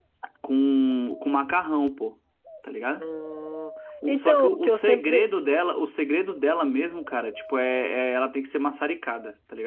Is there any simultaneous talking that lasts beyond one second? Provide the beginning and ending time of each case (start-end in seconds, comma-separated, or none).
4.1-5.3